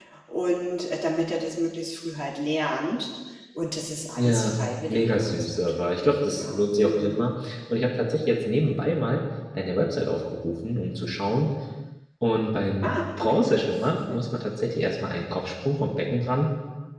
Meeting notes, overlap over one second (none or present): present